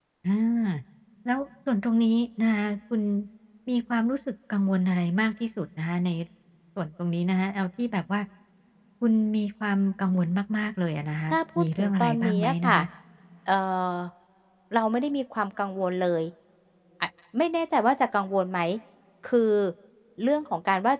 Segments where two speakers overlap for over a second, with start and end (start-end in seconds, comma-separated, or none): 11.3-12.8